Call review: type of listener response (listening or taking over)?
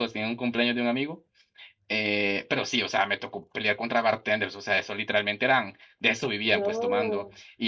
listening